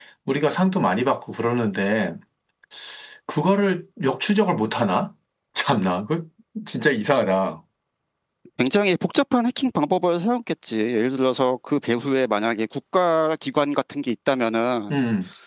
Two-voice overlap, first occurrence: none

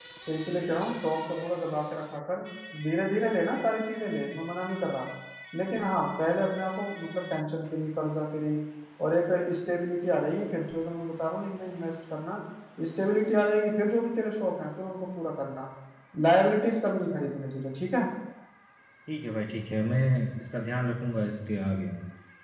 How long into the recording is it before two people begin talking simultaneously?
none

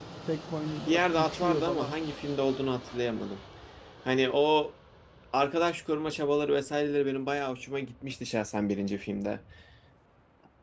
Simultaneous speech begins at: 0.8 s

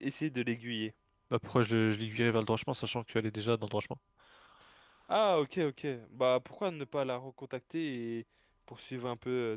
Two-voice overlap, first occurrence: none

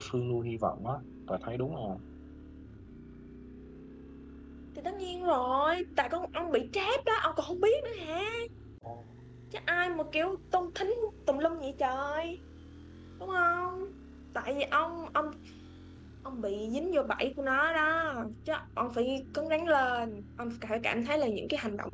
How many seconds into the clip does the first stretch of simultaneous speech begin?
none

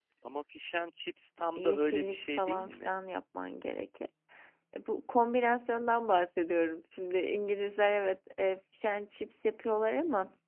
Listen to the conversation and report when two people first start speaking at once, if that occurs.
1.6 s

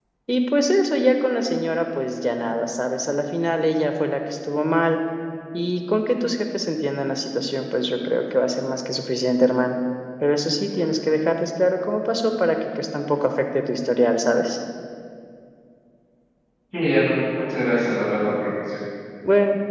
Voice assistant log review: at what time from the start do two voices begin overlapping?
none

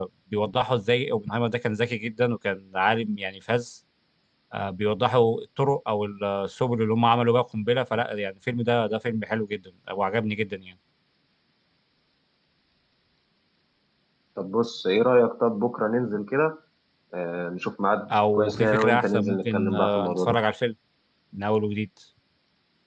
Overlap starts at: 18.1 s

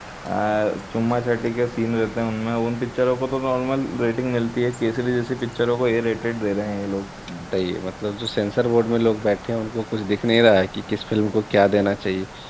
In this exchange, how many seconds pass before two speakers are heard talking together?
none

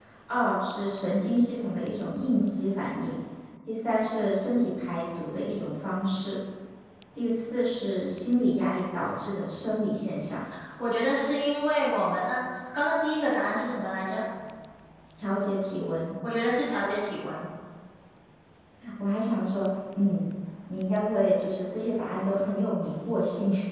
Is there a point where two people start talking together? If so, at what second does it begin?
none

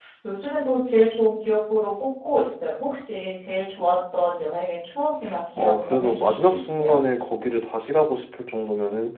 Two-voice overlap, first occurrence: 5.6 s

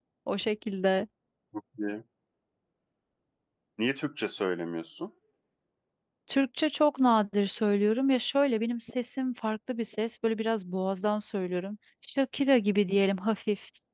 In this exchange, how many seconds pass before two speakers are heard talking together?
none

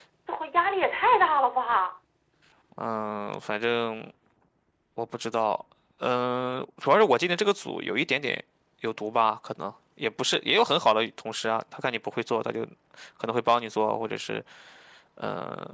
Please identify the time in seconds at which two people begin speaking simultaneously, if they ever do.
none

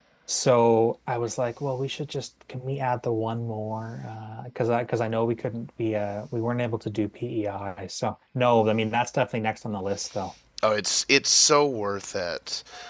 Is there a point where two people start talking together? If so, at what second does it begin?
none

